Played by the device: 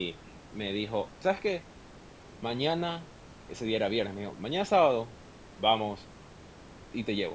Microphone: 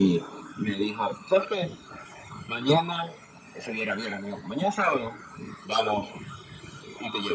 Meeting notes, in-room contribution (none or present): none